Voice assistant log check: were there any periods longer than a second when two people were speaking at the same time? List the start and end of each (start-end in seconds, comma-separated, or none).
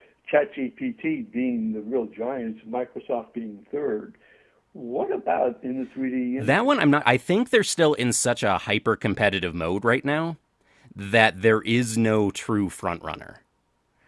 none